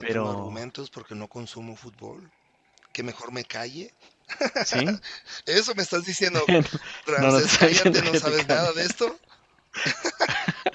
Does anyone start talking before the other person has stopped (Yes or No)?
Yes